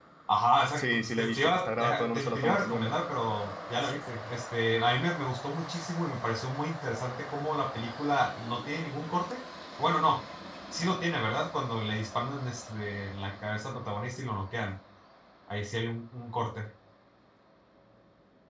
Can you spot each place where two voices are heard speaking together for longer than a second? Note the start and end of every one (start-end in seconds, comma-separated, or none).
0.8-3.0